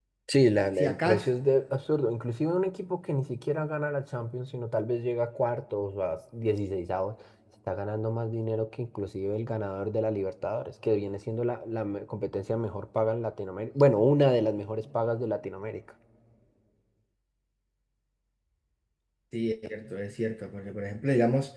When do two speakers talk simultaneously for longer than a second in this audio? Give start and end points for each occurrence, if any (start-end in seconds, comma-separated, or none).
none